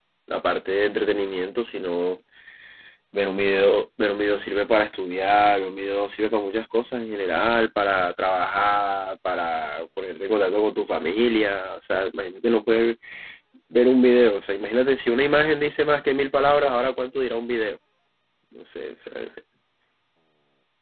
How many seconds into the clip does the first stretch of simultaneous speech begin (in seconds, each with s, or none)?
none